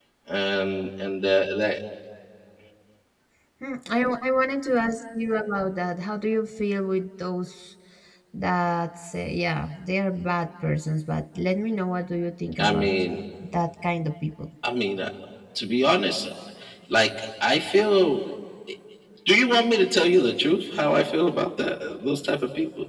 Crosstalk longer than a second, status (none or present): none